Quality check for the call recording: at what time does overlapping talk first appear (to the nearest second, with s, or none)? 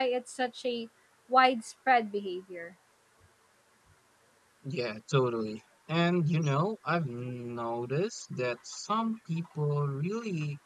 none